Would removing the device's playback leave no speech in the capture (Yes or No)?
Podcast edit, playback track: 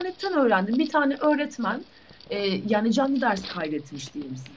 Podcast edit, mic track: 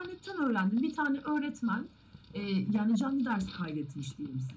Yes